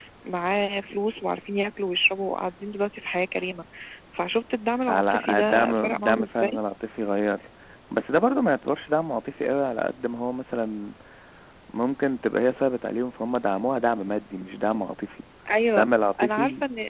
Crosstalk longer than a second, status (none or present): present